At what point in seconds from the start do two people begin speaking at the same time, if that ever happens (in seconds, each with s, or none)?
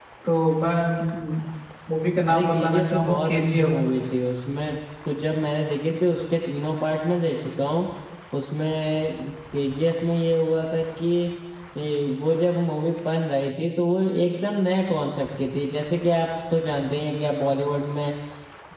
2.3 s